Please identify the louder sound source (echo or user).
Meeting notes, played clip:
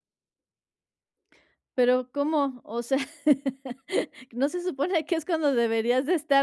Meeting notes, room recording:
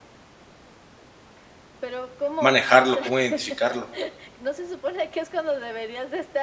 user